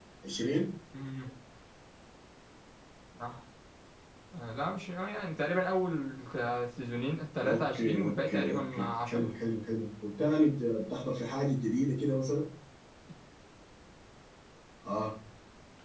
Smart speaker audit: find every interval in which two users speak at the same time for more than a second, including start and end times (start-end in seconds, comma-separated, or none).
7.4-9.2